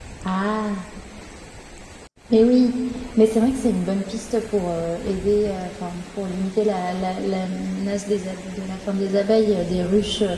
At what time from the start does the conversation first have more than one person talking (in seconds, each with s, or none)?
none